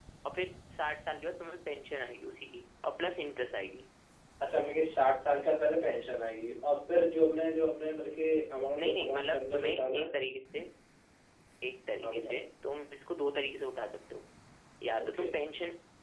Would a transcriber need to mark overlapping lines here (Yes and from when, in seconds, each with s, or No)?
Yes, from 8.8 s